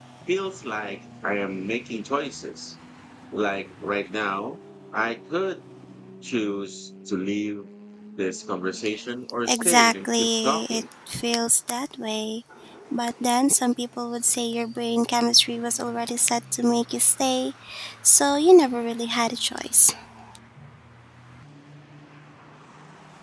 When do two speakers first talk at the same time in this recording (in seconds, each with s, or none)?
9.4 s